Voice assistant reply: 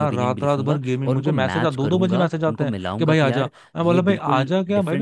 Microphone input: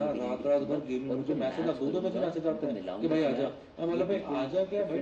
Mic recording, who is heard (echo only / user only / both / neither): echo only